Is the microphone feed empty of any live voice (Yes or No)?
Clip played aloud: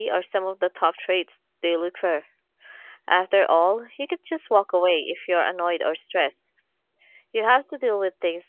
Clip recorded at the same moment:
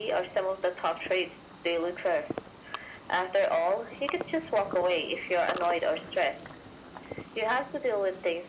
Yes